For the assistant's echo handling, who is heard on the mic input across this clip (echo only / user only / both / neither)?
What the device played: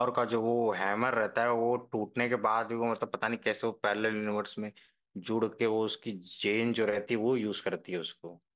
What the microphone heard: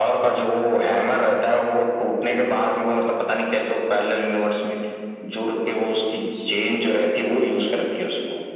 echo only